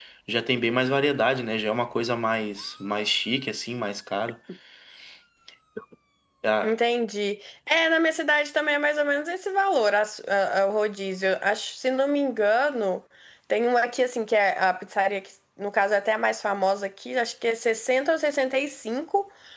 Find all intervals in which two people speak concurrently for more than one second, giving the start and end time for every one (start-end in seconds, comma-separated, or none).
none